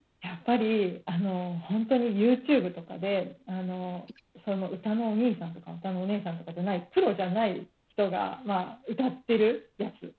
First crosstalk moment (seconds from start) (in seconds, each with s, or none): none